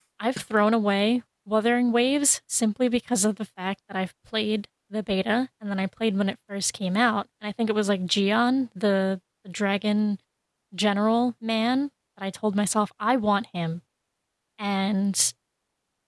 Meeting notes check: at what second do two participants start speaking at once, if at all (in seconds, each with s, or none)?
none